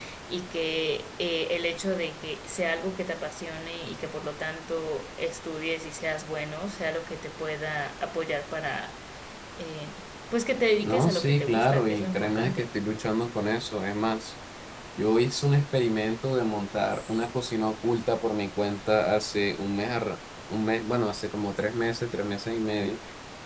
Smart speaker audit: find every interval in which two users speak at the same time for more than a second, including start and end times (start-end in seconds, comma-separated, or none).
10.8-12.7